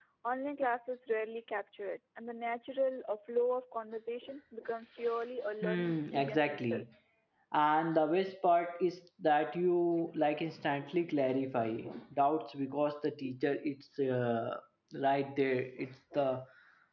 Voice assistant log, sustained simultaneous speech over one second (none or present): present